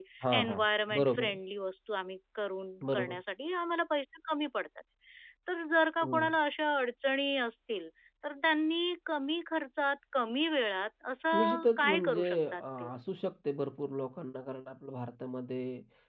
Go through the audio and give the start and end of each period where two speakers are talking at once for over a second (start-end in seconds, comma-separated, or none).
11.3-12.9